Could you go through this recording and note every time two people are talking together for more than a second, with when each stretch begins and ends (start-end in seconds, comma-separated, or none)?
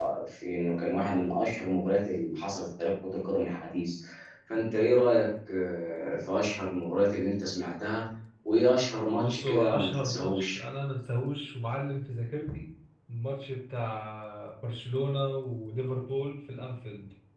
9.2-10.6